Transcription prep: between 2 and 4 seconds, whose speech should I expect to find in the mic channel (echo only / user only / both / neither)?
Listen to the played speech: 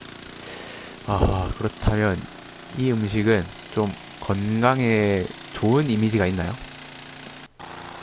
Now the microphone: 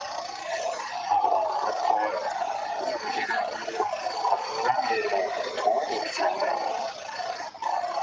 echo only